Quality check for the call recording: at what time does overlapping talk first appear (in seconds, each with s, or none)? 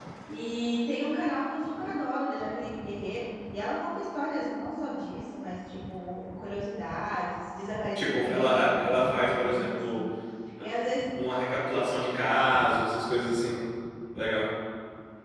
8.0 s